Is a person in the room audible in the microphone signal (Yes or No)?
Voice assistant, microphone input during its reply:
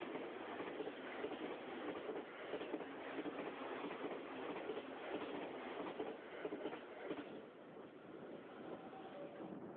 No